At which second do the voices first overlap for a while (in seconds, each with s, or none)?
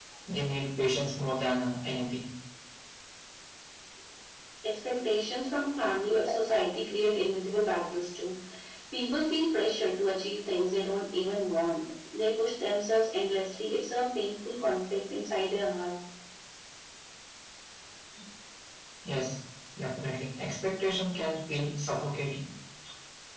none